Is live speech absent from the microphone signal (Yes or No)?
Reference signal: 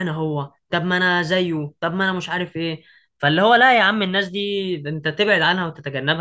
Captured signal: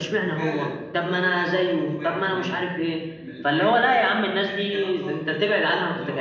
No